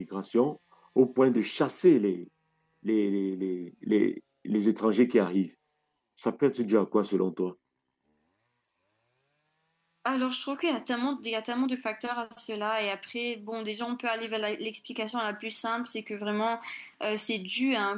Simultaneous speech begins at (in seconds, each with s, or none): none